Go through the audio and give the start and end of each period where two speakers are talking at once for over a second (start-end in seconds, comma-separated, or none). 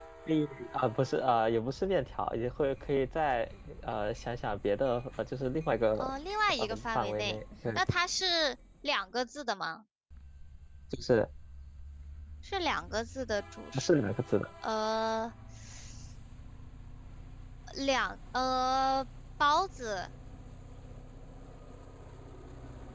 6.6-7.8